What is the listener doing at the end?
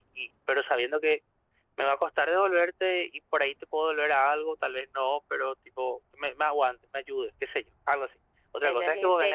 listening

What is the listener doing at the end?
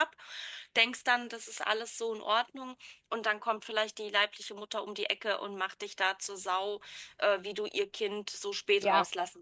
taking over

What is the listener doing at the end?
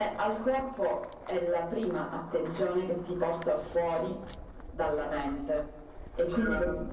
listening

